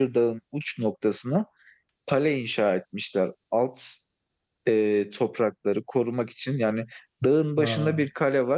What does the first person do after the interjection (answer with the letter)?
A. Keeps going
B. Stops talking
A